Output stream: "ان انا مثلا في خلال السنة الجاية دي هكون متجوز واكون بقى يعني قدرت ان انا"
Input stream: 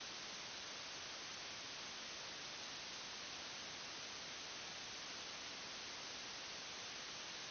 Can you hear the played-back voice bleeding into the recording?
No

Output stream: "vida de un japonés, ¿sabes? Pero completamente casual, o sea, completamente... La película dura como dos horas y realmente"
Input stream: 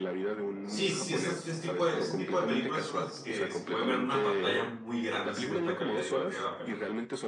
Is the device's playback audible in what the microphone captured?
Yes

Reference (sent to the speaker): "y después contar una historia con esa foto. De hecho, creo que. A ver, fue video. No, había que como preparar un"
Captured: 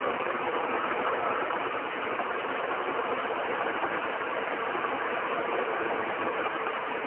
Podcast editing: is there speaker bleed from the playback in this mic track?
No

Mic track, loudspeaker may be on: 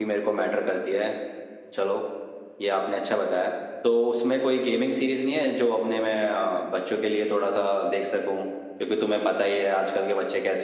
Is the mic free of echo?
Yes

